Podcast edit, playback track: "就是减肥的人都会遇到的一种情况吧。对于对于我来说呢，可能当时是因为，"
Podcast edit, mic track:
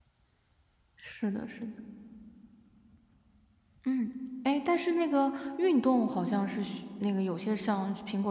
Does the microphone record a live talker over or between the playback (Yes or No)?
Yes